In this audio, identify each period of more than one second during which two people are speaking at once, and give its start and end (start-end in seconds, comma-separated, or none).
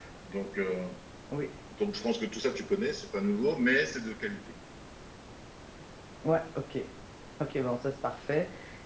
none